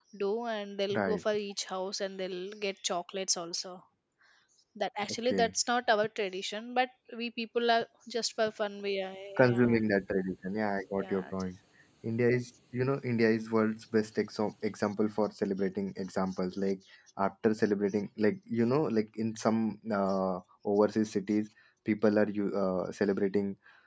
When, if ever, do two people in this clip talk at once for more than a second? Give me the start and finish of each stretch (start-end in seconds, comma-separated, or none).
none